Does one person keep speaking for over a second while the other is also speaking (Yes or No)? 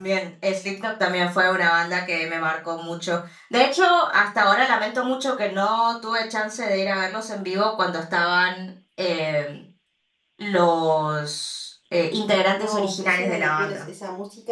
Yes